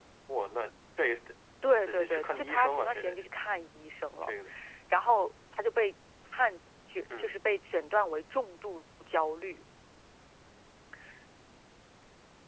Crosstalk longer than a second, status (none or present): present